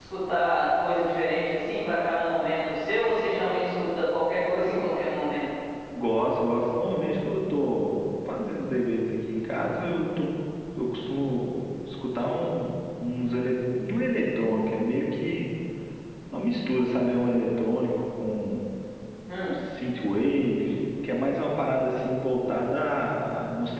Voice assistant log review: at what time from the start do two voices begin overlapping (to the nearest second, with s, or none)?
none